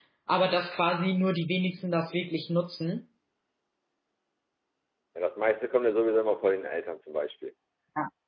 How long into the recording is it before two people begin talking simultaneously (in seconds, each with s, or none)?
none